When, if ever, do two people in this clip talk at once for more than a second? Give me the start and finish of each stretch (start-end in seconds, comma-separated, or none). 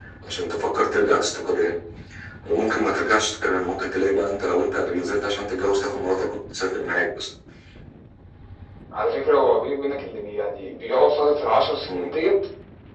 none